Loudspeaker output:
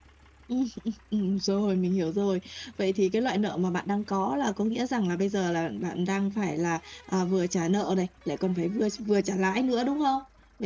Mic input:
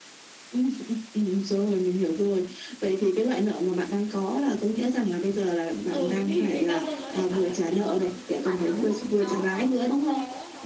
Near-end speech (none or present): present